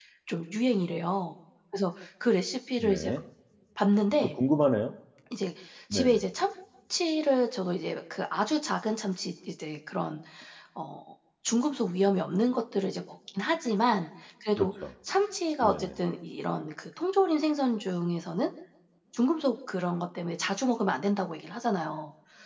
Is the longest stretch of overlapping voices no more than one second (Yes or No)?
Yes